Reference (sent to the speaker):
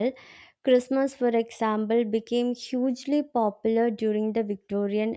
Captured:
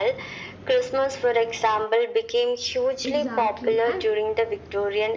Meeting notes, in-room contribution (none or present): present